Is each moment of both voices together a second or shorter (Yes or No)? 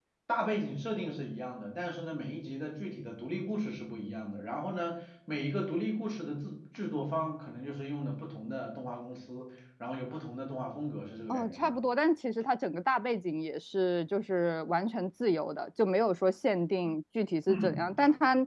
Yes